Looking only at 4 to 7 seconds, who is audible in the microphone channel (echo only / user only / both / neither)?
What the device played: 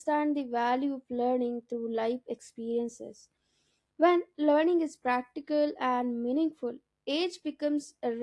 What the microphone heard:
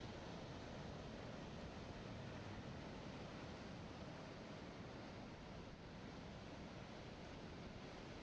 neither